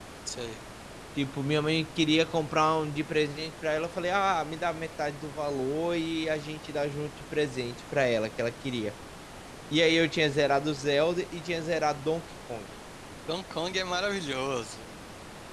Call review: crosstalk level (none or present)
none